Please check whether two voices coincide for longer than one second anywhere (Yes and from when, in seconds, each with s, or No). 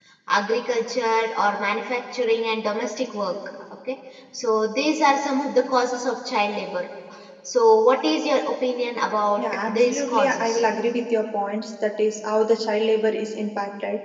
Yes, from 9.4 s